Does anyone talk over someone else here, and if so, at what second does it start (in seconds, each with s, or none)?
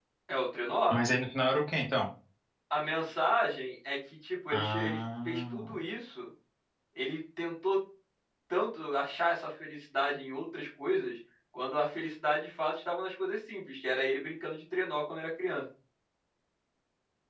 4.5 s